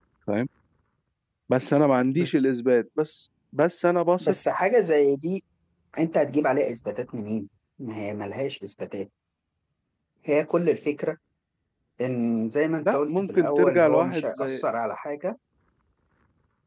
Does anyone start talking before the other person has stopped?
Yes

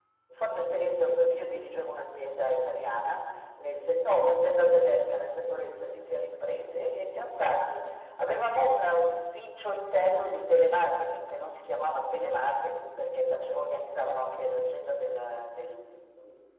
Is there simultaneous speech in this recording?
No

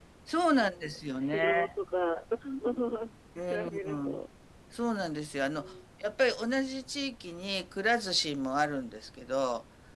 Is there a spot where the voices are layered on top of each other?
Yes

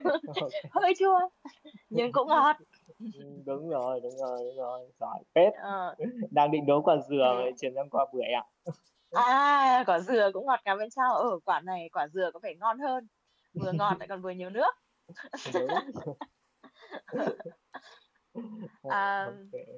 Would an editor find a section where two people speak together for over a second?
No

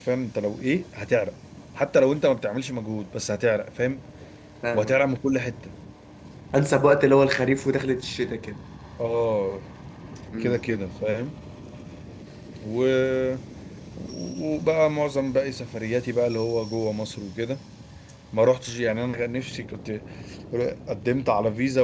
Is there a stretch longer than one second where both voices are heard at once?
No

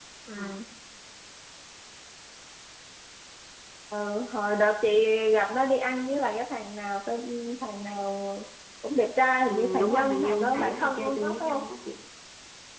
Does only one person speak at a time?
No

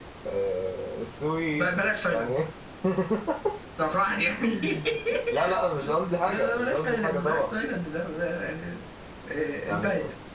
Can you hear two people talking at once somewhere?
Yes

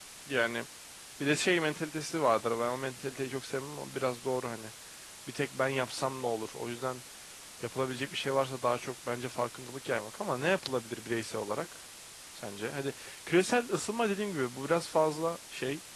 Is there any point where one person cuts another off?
No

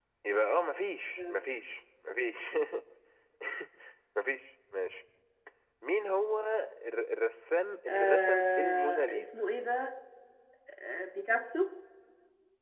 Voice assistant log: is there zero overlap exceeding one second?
No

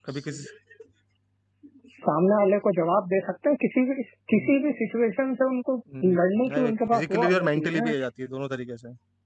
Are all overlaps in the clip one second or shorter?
No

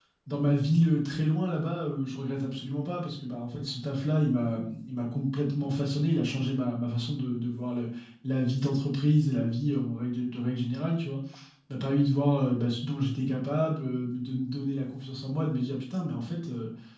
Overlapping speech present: No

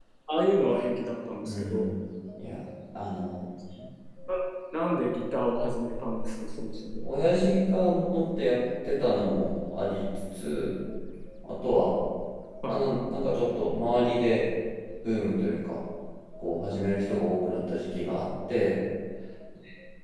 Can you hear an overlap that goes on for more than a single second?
No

